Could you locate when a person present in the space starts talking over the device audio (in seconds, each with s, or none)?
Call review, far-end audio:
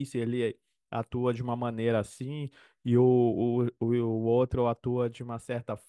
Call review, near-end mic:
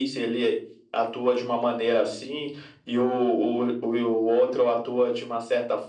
none